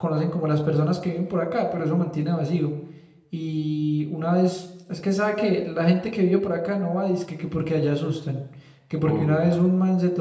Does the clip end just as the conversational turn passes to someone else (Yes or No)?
No